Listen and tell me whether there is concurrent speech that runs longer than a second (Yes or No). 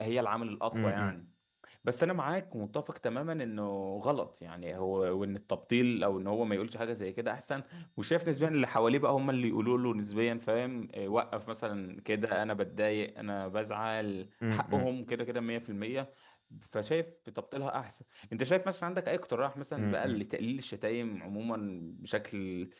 No